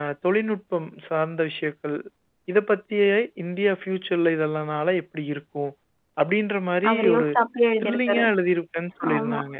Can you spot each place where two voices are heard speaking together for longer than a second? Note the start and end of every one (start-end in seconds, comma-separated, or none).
none